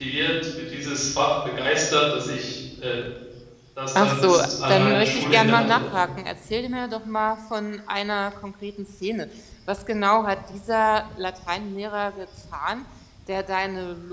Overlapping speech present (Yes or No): Yes